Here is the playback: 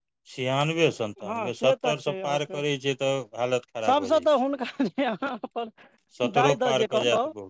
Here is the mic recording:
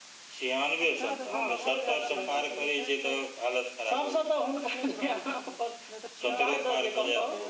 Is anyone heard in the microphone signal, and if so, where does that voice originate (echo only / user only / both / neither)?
both